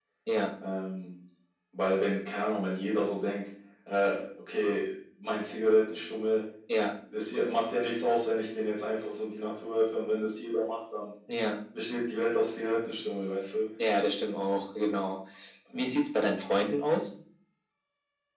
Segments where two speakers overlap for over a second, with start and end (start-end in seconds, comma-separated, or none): none